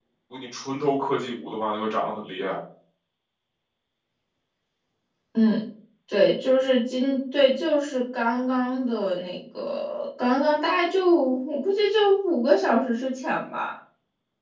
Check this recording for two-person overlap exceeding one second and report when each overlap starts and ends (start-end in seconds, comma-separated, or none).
none